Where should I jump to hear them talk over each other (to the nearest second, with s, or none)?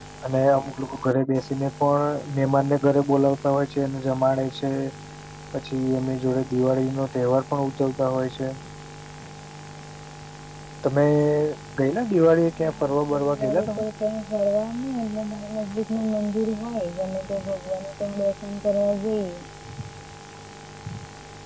13 s